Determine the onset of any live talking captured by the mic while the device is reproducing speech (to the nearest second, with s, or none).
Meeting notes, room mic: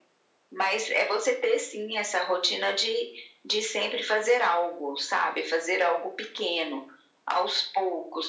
none